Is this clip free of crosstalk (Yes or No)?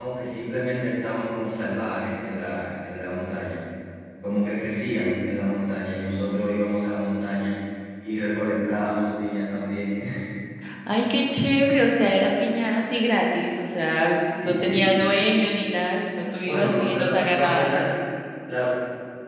No